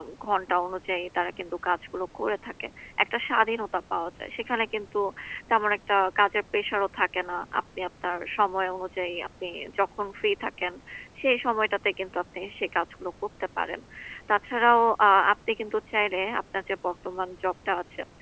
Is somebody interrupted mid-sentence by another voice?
No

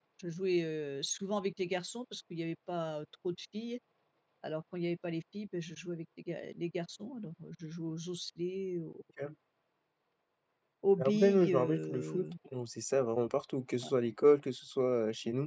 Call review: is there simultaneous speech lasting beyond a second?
Yes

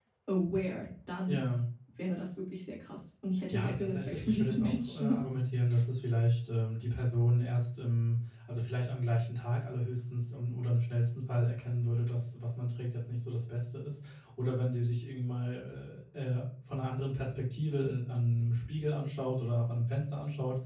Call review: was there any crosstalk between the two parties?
Yes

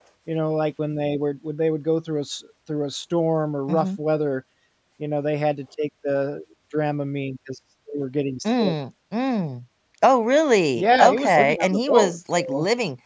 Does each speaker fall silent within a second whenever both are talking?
No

